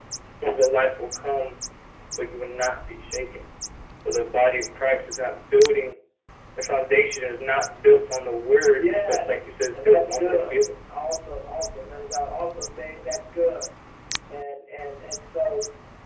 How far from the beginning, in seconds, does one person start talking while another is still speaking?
8.8 s

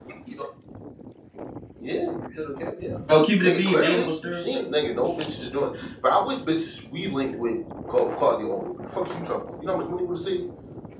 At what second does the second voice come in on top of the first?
3.1 s

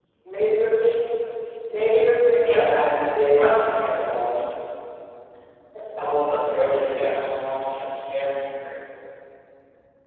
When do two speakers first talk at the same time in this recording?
2.4 s

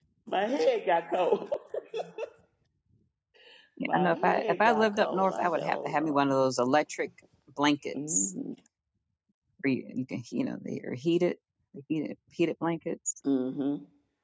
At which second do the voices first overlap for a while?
3.9 s

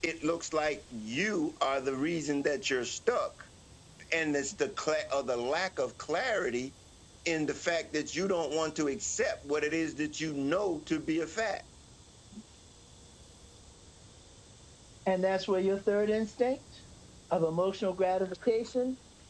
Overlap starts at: none

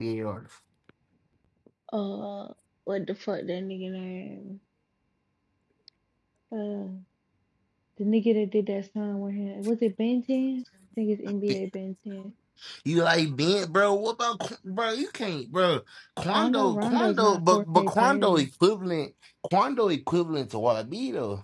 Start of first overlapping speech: 16.3 s

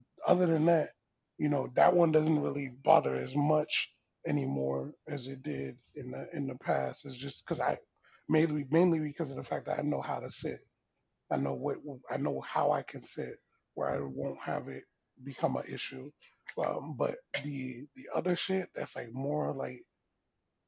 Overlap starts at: none

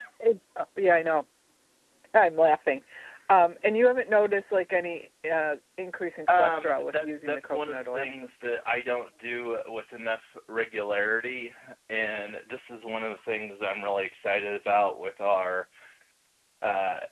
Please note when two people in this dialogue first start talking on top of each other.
6.3 s

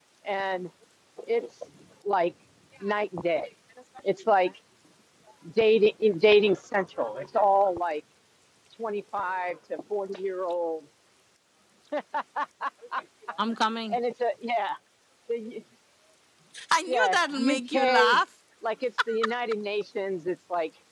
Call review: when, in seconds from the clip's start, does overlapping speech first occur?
16.9 s

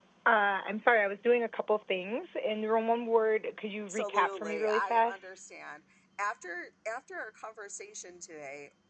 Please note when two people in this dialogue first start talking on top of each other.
3.9 s

